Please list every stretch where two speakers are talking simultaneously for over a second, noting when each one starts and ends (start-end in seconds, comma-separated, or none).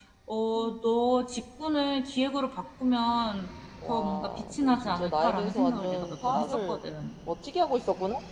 3.9-6.8